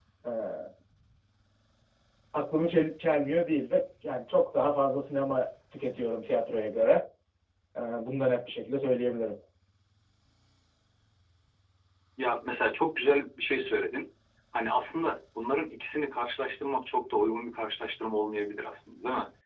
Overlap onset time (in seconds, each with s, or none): none